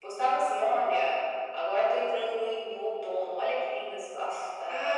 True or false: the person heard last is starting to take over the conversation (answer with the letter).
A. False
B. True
B